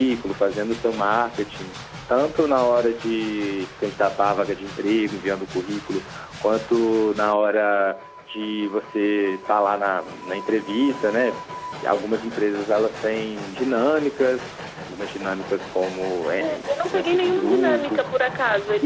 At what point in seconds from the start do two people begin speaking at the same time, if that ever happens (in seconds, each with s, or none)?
16.4 s